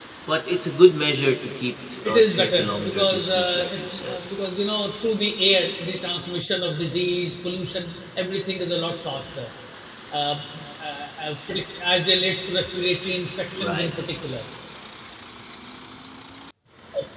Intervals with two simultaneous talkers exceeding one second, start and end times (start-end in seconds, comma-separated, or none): 2.0-4.2